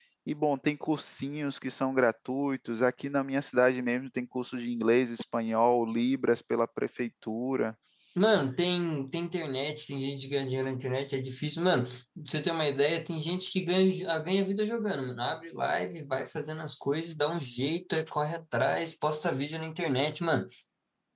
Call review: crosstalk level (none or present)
none